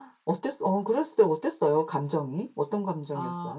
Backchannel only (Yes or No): No